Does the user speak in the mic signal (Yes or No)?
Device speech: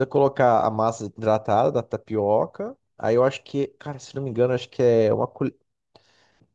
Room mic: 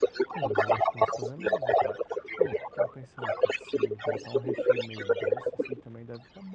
Yes